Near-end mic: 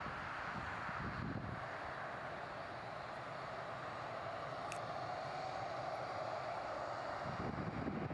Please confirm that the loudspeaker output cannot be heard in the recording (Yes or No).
Yes